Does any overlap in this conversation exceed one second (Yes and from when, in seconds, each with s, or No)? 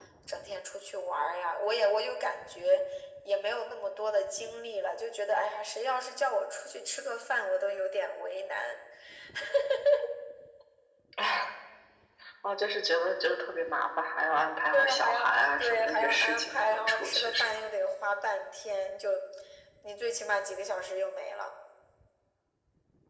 Yes, from 14.7 s